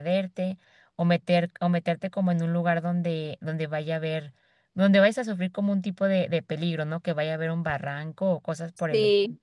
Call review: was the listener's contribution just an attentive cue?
No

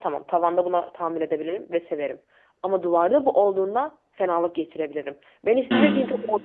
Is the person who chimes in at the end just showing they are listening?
Yes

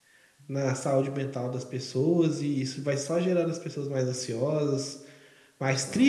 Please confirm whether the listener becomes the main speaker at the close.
No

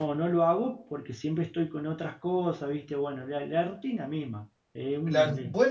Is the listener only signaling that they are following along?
No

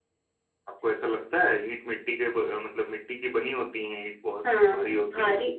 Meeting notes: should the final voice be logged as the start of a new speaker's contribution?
Yes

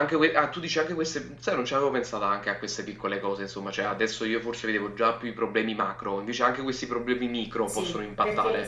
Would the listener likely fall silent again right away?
No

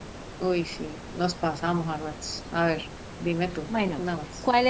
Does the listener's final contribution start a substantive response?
Yes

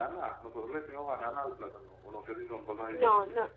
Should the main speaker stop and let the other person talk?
Yes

